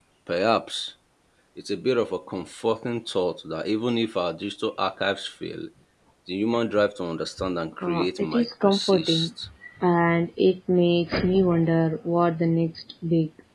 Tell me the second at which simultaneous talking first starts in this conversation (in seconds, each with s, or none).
7.8 s